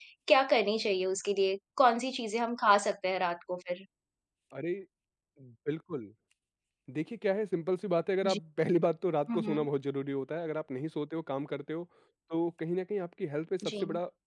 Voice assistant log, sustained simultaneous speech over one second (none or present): none